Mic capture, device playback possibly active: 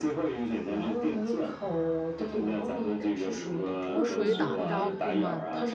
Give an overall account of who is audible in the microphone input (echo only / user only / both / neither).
both